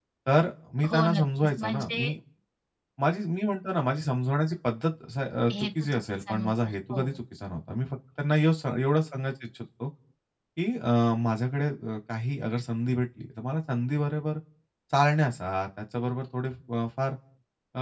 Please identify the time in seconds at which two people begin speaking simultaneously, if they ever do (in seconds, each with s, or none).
0.9 s